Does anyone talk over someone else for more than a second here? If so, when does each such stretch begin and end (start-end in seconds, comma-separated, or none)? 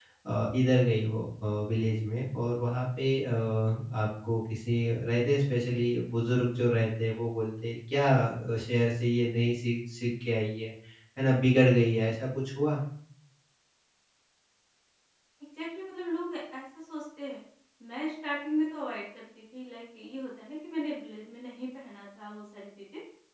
none